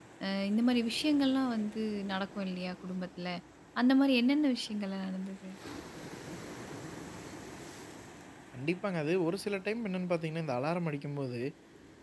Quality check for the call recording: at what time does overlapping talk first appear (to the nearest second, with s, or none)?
none